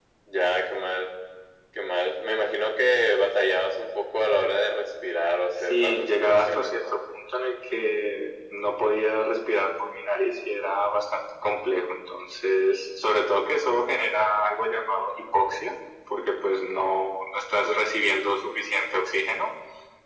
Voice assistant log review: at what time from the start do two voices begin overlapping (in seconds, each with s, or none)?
5.6 s